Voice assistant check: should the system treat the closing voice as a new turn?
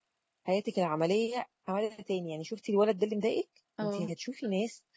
No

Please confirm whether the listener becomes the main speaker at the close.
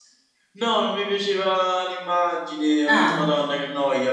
No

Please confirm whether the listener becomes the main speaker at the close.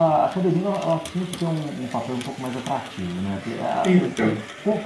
No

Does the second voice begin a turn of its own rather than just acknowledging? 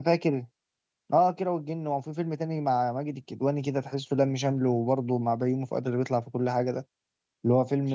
No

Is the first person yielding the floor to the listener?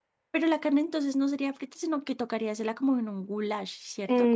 Yes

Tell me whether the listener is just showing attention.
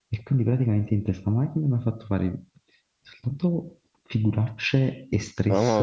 Yes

